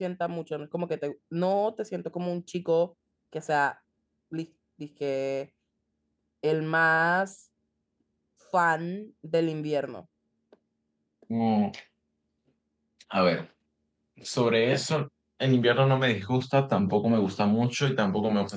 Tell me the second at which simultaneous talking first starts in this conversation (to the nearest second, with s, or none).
none